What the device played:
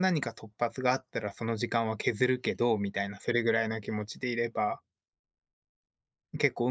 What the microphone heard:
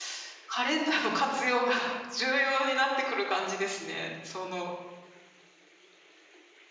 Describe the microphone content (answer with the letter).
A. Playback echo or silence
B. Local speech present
B